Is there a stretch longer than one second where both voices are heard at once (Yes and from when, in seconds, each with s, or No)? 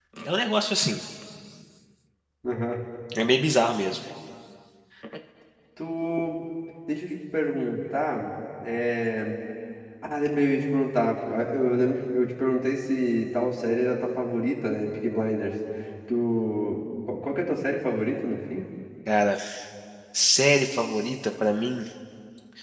No